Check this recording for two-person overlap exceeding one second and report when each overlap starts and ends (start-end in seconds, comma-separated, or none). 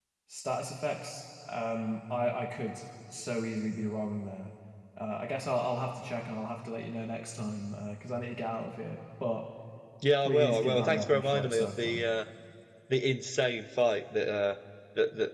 10.2-12.1